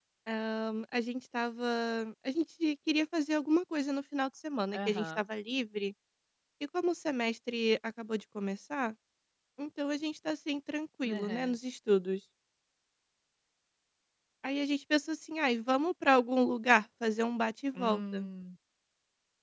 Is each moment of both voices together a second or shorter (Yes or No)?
Yes